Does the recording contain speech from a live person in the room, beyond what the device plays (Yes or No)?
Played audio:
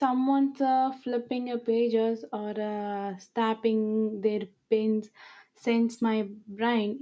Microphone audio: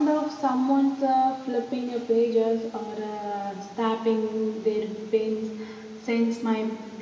No